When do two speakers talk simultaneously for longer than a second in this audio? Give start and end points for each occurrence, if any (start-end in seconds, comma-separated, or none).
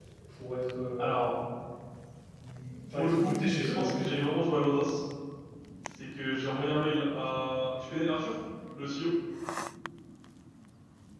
2.9-4.2